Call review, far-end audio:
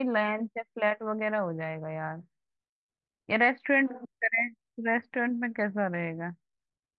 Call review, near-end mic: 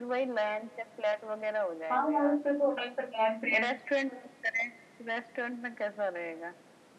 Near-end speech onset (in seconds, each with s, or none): 1.9 s